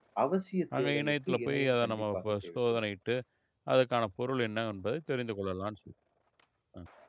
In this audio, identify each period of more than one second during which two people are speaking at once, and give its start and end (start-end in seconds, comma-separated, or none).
0.8-2.8